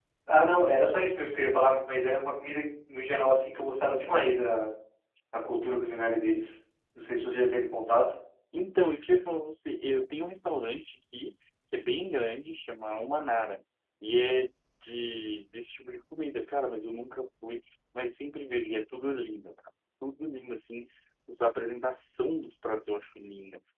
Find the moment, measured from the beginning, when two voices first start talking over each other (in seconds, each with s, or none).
none